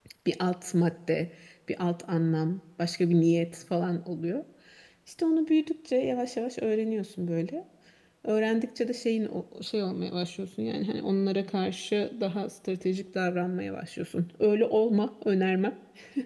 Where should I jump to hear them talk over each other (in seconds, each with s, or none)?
none